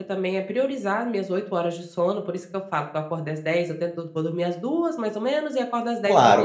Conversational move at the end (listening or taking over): taking over